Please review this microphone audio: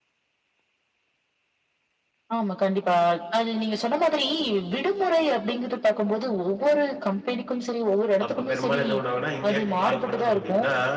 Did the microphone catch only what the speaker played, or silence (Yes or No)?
No